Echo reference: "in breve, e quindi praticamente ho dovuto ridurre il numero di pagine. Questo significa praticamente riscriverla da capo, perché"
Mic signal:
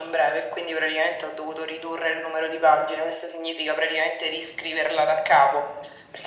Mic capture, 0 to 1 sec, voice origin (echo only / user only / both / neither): echo only